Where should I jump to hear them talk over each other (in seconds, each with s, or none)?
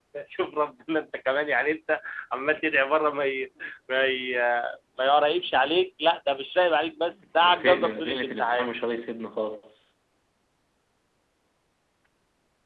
7.2 s